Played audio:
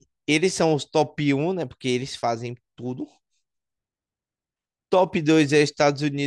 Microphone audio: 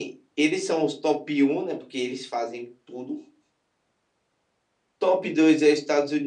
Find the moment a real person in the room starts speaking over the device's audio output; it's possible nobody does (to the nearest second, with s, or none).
none